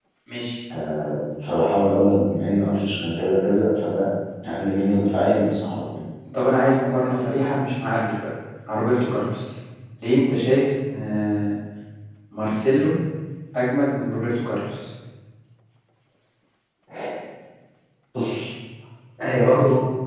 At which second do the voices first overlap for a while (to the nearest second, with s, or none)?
none